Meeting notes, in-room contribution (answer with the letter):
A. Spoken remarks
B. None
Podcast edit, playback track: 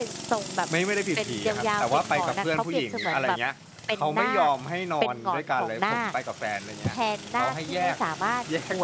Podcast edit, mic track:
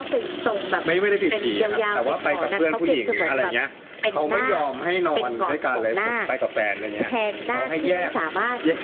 B